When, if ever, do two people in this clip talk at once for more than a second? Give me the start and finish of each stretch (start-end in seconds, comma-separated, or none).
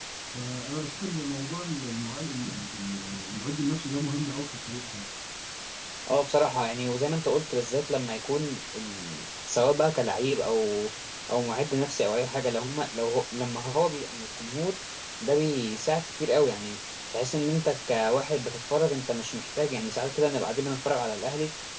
none